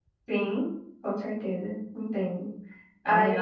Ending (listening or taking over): taking over